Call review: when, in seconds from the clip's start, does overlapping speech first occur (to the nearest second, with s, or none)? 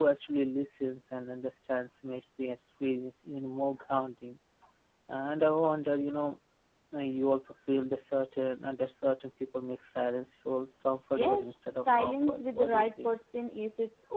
11 s